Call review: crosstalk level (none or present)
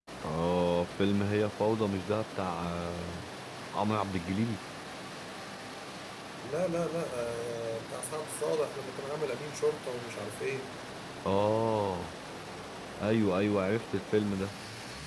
none